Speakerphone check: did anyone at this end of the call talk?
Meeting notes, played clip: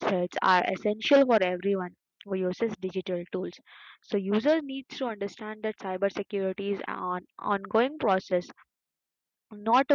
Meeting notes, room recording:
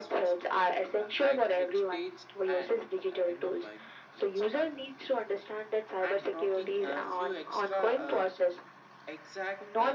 Yes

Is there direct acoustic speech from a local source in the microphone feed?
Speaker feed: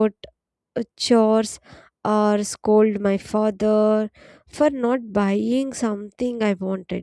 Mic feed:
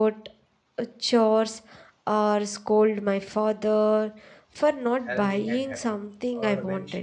Yes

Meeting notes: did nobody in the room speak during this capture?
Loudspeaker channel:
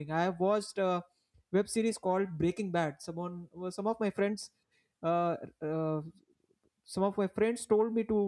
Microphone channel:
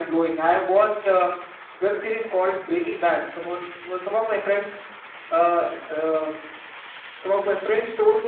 Yes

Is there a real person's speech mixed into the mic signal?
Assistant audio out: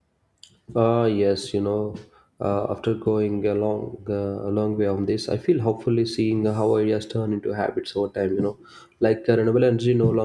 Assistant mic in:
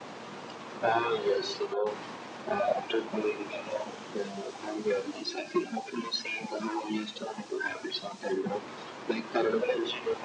No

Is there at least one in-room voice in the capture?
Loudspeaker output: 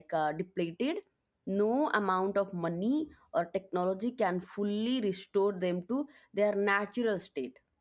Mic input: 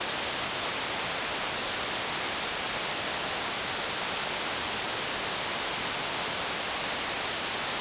No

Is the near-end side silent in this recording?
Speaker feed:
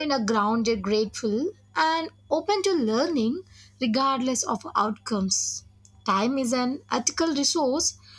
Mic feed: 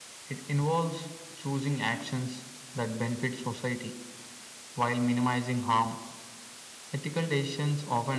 No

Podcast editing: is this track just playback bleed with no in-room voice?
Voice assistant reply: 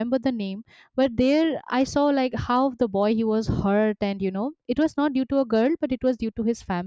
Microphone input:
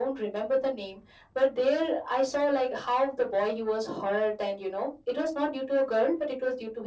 Yes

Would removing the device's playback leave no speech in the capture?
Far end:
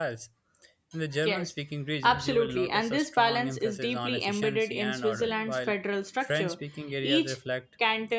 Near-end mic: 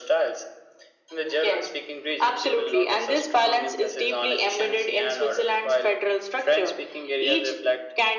Yes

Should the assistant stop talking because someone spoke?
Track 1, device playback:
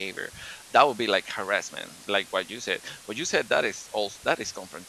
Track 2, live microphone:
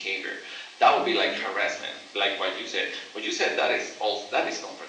Yes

